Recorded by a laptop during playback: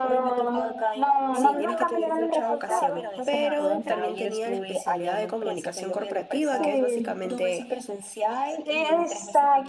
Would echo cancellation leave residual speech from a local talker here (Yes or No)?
Yes